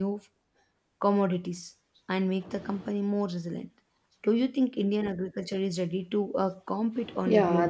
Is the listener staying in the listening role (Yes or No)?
No